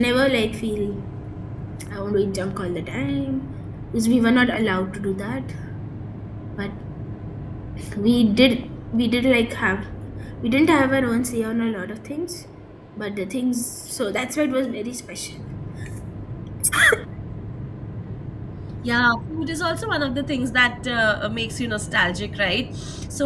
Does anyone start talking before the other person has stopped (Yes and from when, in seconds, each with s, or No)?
No